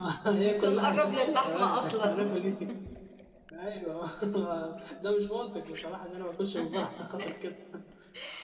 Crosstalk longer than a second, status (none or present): present